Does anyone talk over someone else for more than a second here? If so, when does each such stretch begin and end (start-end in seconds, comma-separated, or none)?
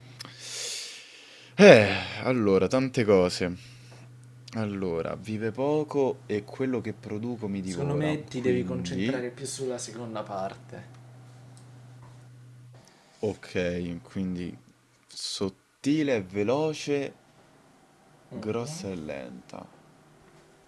7.7-9.2